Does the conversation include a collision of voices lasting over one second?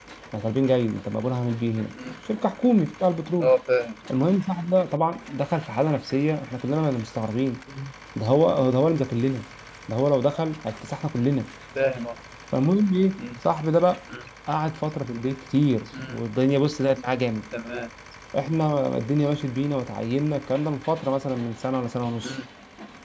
No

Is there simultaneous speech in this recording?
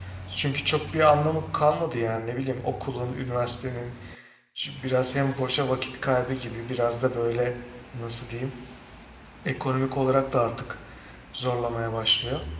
No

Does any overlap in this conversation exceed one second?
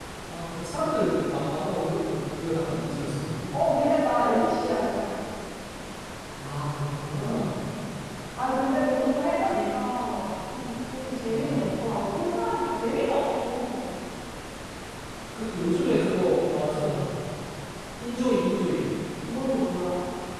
No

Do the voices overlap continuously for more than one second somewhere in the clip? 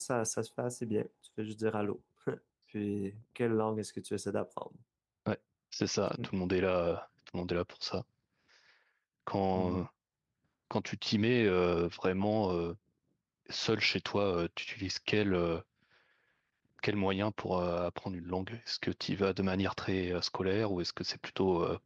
No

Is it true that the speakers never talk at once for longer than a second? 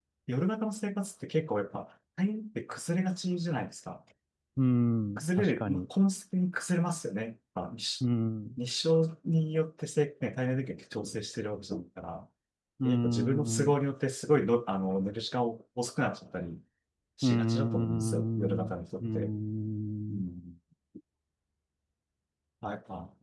No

